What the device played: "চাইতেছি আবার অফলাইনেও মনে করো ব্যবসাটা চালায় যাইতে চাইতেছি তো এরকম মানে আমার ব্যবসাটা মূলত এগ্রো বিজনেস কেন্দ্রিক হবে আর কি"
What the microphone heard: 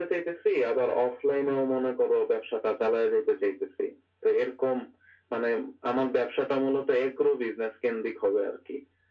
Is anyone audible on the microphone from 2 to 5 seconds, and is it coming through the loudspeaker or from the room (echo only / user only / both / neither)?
echo only